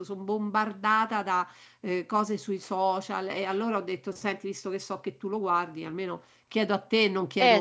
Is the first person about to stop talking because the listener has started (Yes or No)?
Yes